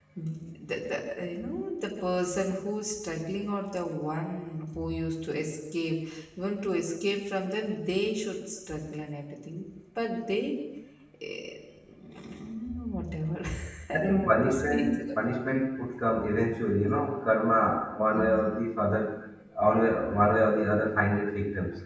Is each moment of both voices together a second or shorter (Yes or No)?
No